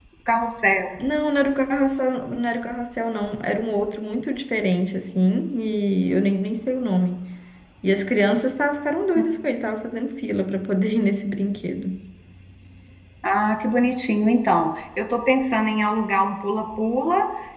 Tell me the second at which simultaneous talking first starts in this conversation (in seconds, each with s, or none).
none